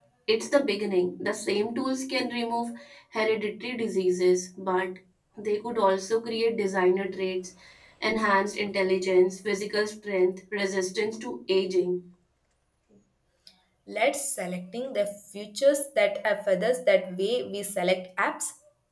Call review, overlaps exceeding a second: none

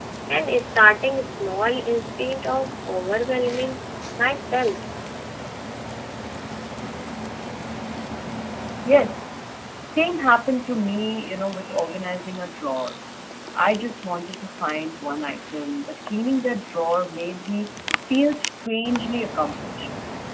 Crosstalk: none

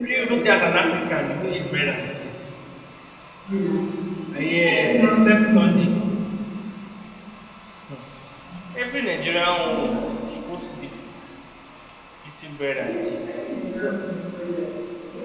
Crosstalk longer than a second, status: present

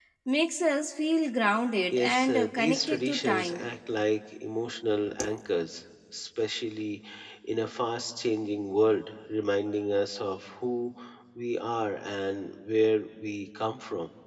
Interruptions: present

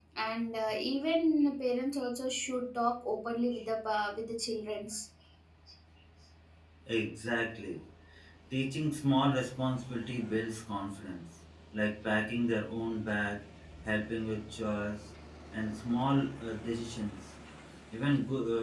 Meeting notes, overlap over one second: none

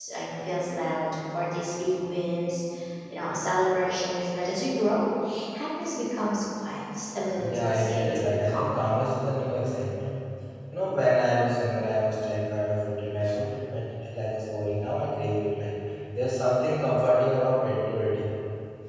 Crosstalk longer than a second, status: present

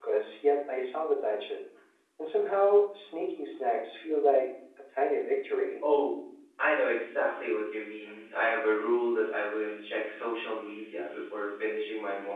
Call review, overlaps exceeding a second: none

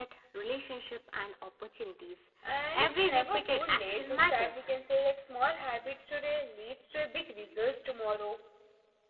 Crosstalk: present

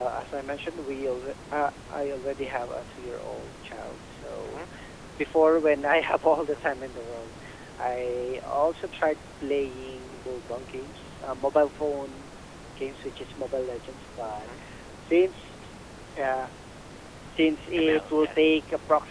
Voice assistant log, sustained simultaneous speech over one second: present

